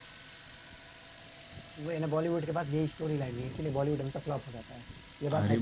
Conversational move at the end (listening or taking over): taking over